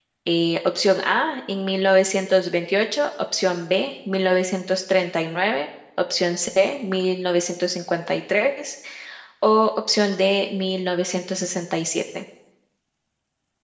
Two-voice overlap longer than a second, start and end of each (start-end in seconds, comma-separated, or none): none